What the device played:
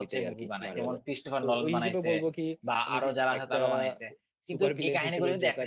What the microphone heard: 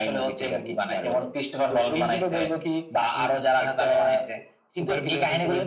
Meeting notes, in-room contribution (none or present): none